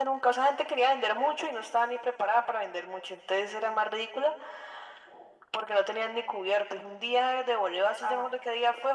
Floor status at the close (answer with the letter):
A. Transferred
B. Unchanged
B